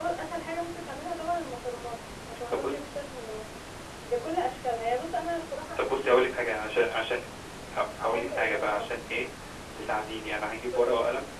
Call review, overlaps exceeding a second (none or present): present